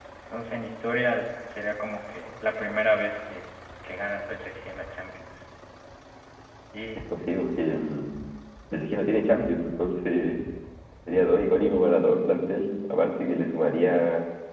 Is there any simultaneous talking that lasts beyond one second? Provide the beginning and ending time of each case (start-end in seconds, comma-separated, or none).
none